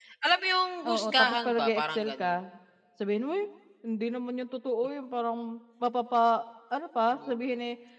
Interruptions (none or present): present